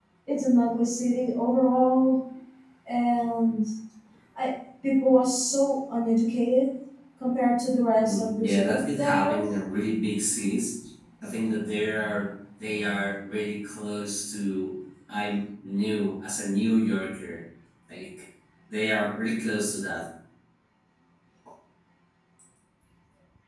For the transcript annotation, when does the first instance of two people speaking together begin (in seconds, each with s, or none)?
8.0 s